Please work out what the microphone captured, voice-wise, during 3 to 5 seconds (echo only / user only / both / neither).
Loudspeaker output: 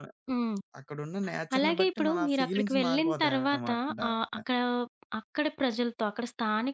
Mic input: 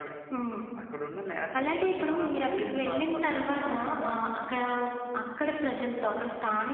echo only